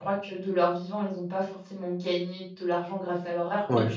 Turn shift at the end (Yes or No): No